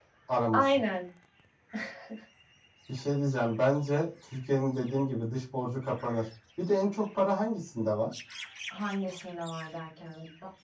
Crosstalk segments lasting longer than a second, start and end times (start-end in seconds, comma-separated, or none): none